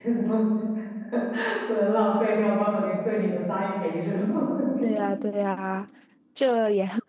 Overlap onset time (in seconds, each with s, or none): none